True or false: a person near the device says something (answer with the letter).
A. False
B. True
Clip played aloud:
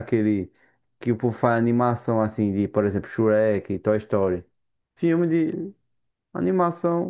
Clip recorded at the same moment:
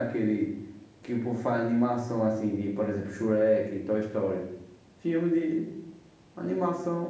A